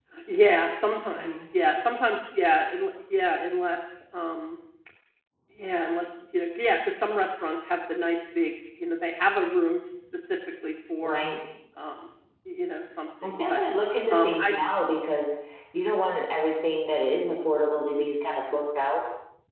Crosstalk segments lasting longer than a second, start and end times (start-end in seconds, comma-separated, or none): none